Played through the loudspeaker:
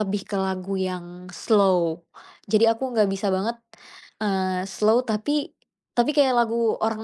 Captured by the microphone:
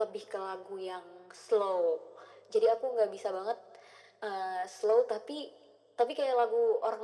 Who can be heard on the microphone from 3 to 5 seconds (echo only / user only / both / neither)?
echo only